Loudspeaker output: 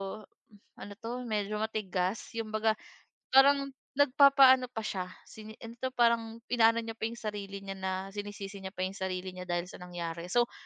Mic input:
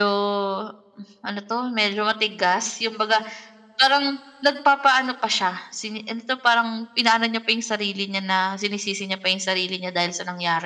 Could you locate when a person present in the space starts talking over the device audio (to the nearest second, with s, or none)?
none